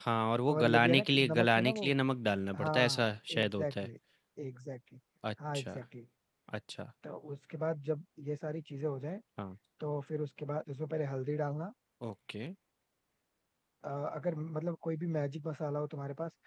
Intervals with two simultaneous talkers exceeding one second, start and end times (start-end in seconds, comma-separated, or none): 0.5-1.9, 2.6-3.9